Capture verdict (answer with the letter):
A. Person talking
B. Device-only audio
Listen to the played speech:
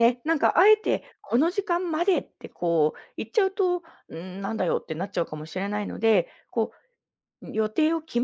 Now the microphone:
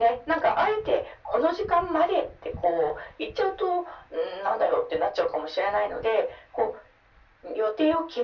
B